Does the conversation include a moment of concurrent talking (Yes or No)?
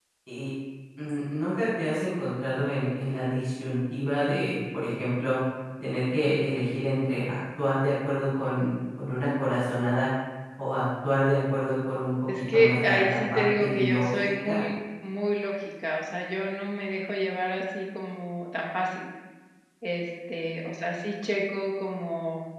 Yes